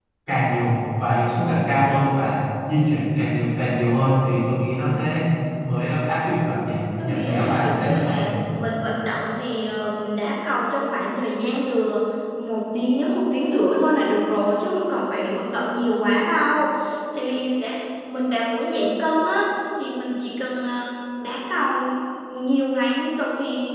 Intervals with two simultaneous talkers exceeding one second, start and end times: 7.0-8.3

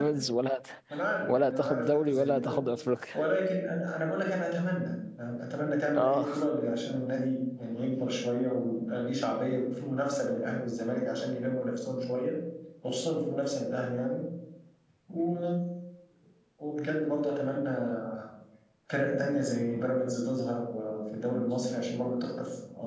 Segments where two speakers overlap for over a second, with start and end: 1.3-2.6

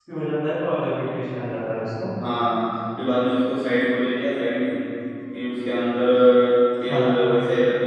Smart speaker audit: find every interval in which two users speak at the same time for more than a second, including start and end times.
none

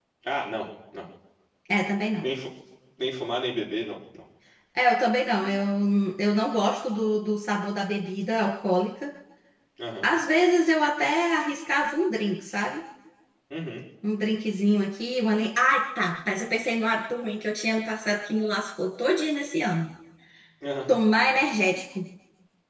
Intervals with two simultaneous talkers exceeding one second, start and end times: none

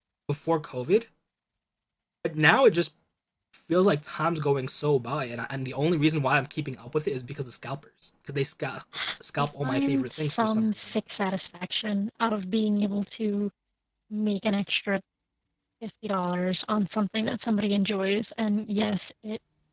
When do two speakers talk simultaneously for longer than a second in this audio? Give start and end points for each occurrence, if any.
9.4-10.6

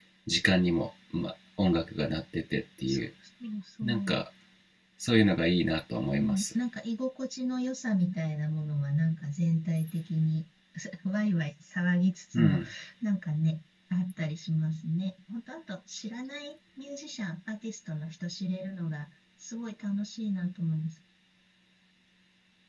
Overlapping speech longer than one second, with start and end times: none

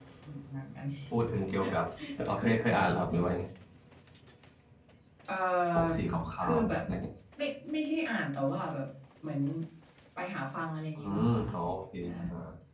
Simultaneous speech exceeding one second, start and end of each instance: none

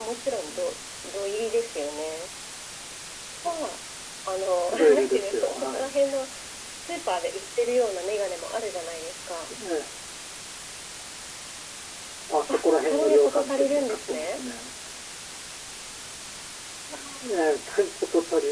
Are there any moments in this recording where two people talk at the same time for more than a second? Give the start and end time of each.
4.7-5.9, 12.5-14.4

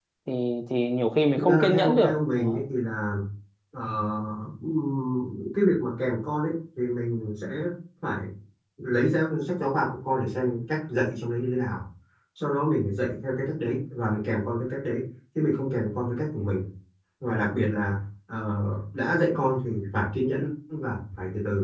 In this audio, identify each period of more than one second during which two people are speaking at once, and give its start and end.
1.4-2.6

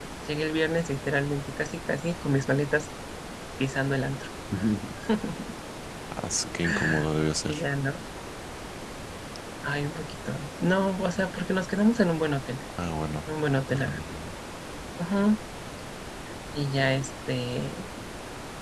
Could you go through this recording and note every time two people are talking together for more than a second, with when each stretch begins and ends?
none

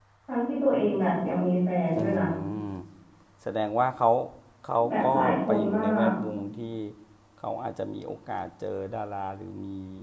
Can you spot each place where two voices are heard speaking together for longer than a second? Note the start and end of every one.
4.9-6.1

